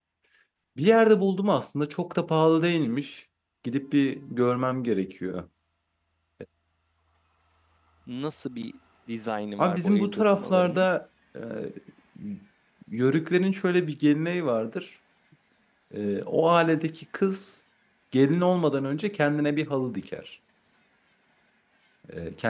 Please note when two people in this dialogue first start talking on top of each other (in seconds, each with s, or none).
9.6 s